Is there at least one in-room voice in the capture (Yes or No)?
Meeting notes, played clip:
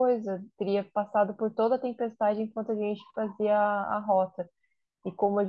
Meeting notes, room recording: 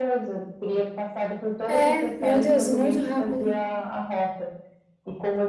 Yes